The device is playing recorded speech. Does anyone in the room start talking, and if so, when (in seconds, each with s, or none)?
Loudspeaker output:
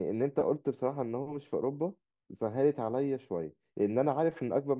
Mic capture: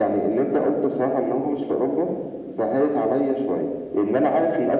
none